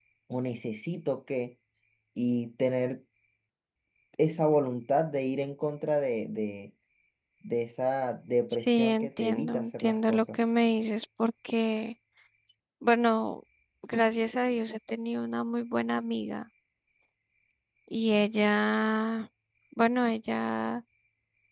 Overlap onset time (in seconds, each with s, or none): 8.6 s